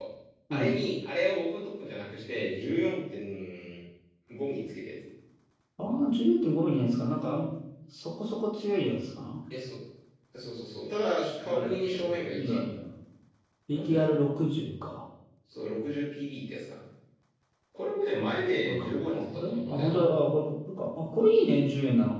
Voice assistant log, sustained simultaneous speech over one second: present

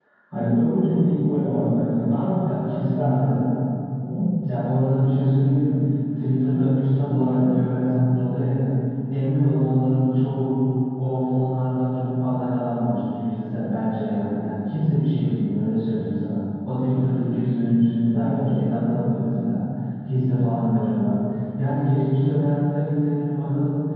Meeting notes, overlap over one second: none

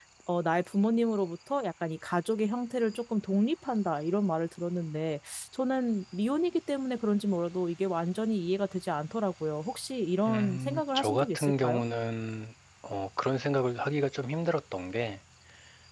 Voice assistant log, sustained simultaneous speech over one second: present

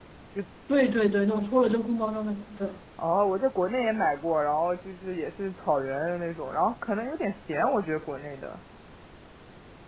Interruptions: none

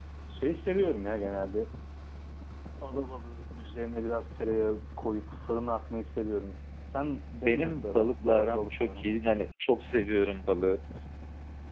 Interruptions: present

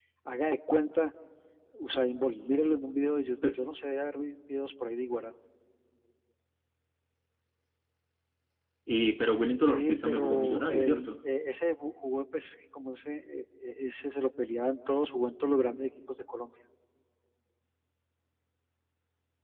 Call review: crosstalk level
present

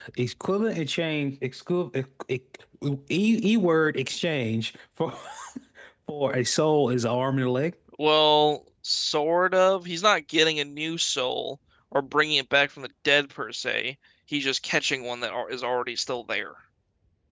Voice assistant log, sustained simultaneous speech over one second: none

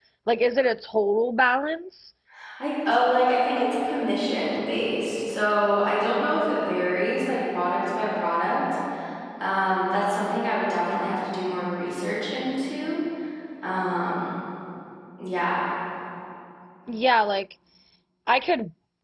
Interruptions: none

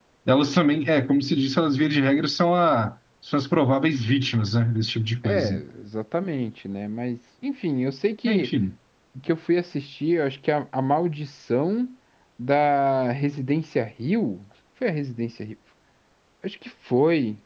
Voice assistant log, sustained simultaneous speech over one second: none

